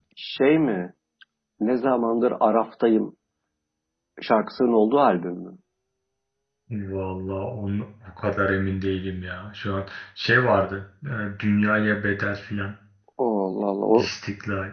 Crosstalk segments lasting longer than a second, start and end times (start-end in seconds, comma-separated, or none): none